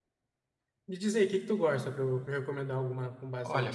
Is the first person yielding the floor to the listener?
Yes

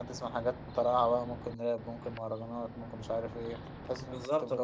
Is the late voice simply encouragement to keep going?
No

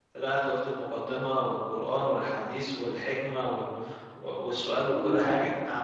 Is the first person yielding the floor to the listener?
No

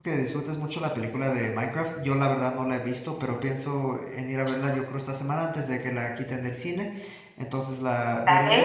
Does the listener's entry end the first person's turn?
No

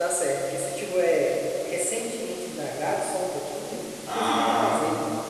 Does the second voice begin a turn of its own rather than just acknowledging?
Yes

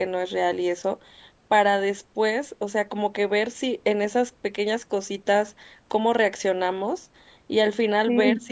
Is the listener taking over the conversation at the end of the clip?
No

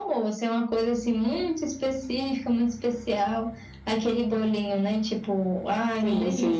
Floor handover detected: No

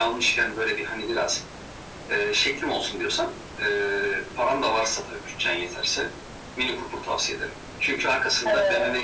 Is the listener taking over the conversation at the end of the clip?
No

